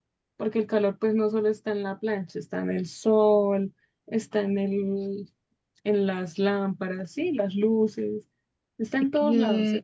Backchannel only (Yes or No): No